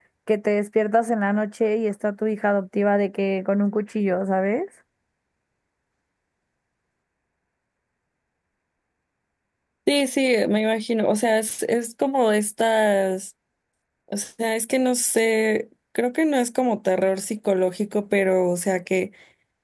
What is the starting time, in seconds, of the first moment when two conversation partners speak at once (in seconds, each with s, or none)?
none